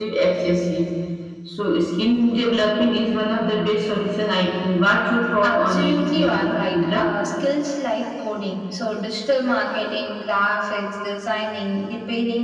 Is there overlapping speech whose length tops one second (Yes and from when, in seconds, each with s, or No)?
Yes, from 5.4 s